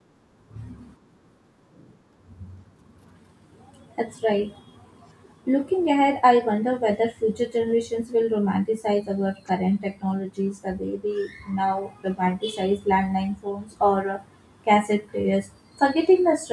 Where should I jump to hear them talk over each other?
none

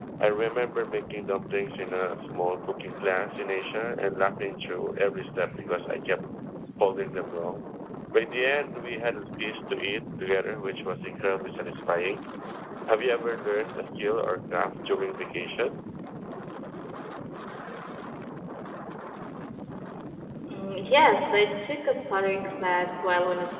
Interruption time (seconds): none

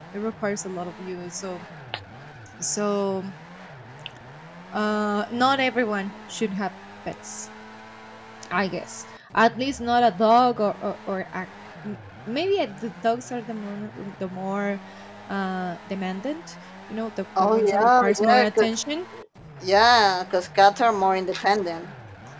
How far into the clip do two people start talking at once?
17.4 s

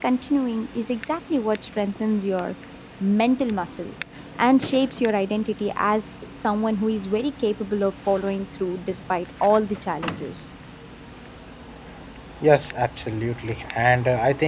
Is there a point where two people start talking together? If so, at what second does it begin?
none

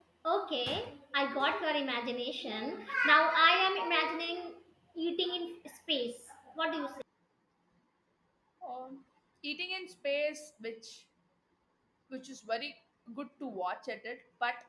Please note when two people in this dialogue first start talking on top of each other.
none

